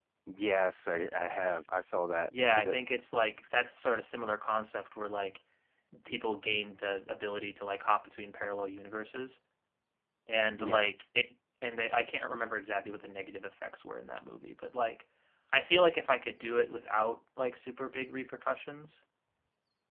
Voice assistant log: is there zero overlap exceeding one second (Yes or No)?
Yes